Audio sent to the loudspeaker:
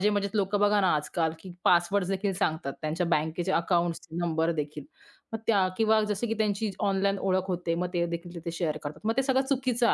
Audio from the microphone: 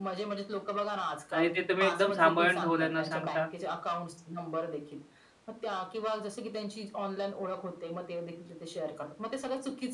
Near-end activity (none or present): present